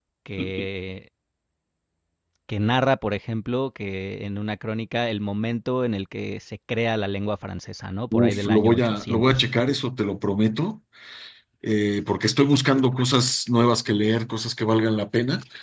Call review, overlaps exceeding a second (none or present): present